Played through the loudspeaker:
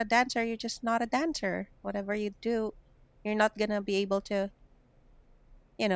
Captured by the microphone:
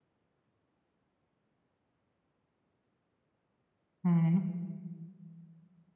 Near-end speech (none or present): present